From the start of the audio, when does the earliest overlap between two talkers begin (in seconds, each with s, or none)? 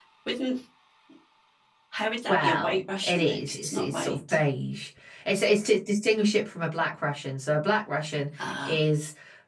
2.3 s